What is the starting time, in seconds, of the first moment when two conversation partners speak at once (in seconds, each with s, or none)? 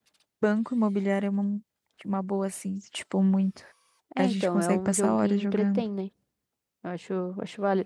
4.2 s